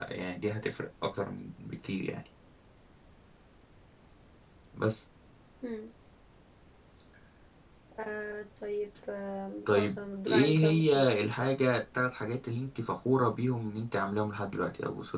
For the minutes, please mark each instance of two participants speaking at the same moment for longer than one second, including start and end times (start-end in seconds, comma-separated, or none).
9.8-11.0